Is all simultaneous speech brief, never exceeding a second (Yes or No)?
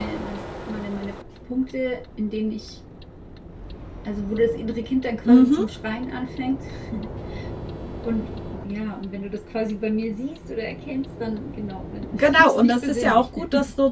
No